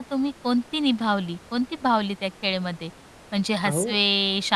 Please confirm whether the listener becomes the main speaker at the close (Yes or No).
No